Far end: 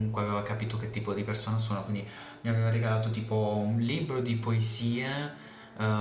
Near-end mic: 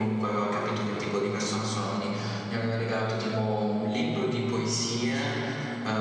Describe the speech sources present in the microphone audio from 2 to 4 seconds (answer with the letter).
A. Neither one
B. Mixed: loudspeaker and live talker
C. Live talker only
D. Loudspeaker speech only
D